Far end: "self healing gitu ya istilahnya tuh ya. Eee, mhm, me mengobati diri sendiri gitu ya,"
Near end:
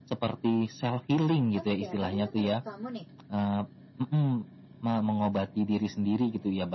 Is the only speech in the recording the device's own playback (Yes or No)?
No